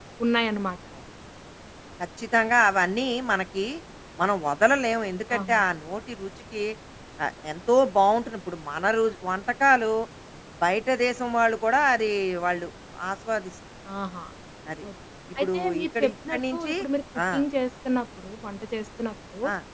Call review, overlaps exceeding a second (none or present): present